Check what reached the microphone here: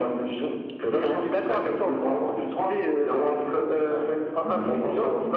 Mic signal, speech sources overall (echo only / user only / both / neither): echo only